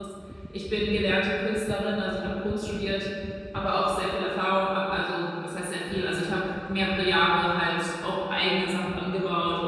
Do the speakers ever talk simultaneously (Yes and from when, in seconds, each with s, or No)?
No